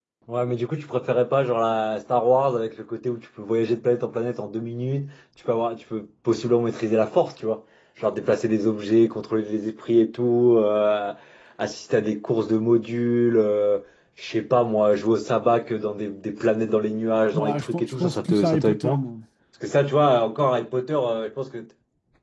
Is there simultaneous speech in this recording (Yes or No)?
Yes